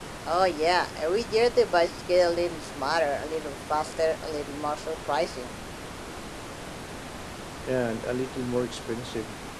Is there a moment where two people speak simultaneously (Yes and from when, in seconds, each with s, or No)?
No